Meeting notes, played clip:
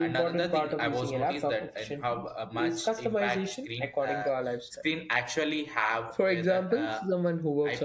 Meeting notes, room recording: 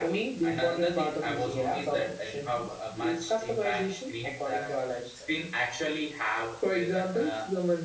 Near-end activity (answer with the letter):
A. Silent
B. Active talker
A